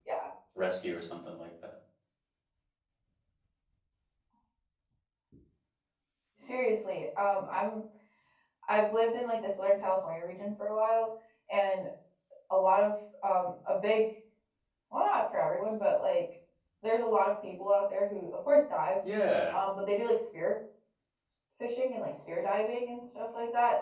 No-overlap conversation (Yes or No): Yes